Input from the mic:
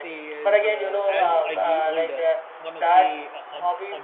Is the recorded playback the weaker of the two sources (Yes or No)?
No